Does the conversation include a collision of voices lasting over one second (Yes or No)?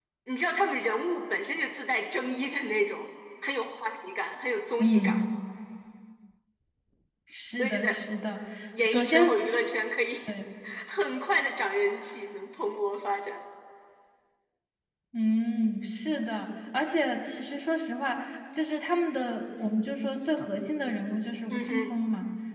No